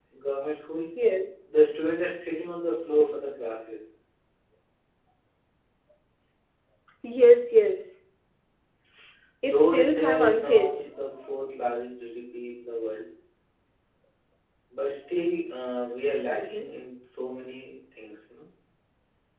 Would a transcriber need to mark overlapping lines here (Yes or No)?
Yes